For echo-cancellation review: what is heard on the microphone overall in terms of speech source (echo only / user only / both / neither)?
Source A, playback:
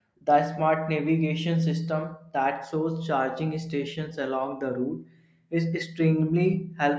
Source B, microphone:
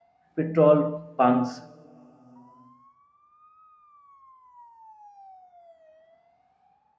user only